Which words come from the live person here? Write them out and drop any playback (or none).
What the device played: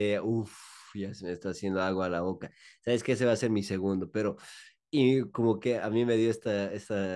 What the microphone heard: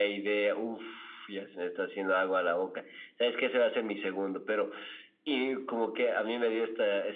none